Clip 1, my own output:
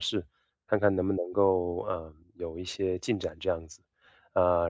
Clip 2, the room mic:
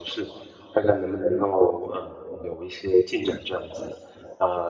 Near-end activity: none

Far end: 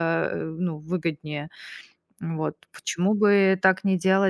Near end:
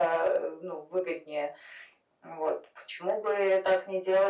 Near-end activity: none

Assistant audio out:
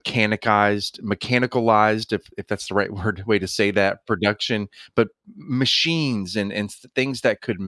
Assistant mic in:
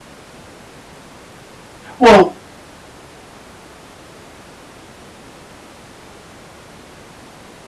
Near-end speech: present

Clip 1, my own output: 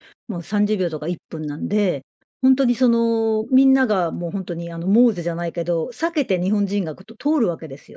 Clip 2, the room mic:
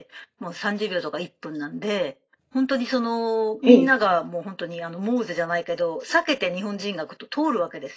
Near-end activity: present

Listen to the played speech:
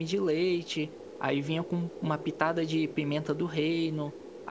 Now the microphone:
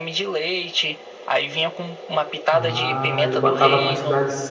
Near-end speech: present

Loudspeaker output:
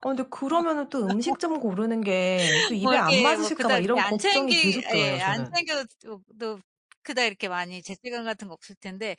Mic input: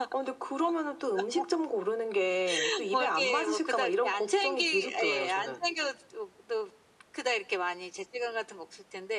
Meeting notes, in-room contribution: none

